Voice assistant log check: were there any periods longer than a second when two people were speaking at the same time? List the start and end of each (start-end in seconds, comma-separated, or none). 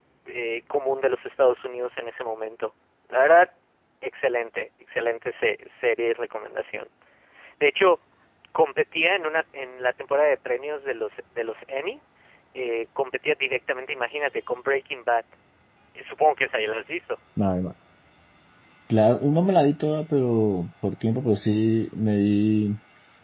none